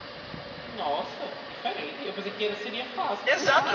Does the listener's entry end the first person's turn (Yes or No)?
Yes